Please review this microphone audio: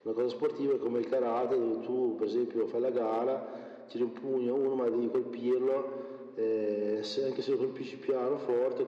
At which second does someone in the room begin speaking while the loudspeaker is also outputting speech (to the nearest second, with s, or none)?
none